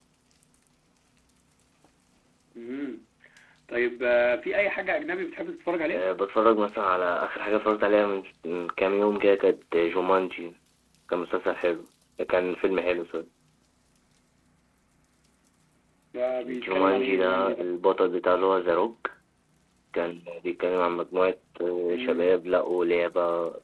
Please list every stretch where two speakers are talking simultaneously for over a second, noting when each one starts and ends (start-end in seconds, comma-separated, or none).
16.4-17.7